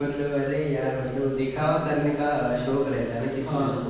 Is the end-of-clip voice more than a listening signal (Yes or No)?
No